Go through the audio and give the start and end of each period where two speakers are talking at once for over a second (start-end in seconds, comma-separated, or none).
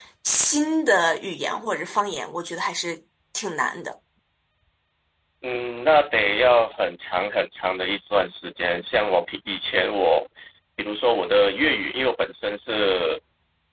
none